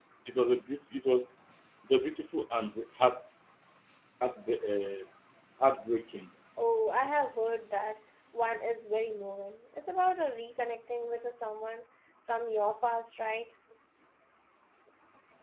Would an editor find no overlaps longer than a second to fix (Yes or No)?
Yes